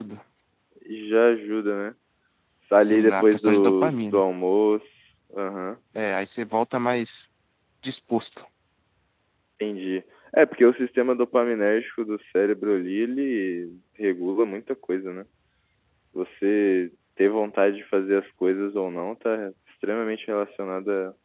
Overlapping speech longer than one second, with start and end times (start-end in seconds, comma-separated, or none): 2.8-4.2